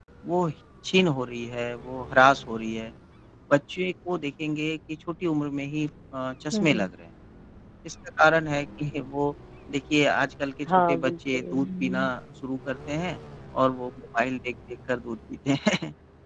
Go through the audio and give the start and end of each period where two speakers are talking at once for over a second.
10.9-12.1

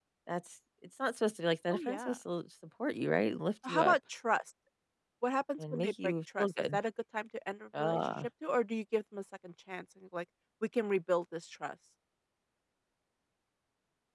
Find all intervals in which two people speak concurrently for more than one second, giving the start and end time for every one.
5.6-6.8

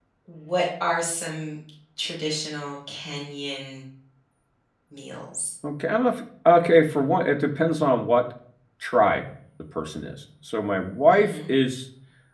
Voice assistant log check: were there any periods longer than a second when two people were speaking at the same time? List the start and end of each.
none

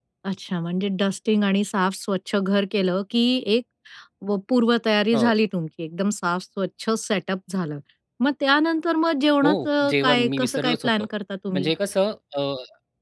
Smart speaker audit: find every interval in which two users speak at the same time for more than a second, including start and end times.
9.4-10.9

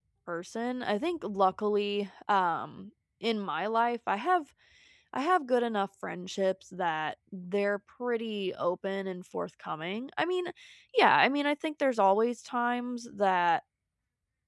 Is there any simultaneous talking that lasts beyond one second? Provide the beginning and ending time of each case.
none

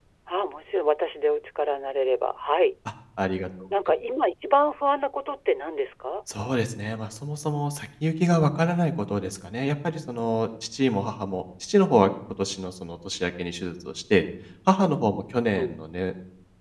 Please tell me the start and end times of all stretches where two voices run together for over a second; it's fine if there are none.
none

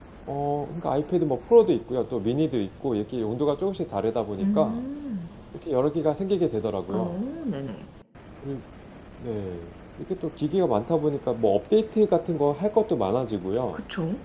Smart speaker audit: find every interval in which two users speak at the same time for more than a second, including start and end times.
none

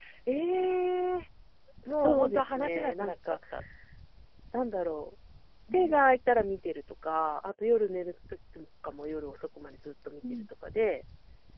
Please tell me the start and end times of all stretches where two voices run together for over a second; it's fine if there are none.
2.0-3.4

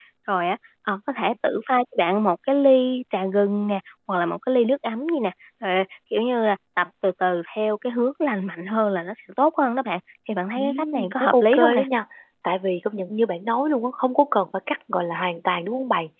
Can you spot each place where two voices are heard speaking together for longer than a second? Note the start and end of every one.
10.6-11.8

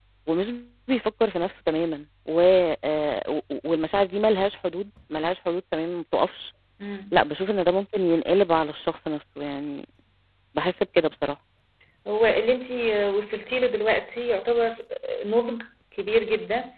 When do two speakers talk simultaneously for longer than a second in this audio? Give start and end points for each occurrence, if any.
none

